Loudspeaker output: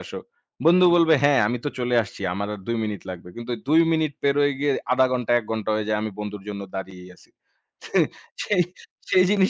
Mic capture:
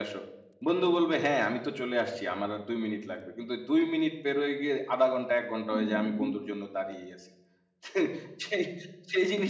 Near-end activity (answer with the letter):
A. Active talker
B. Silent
A